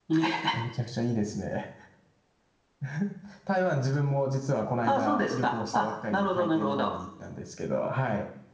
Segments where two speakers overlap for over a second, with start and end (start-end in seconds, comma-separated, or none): 4.9-6.9